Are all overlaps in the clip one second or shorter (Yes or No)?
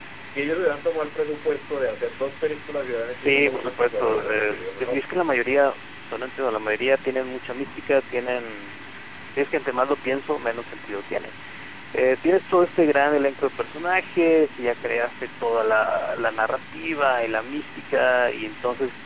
No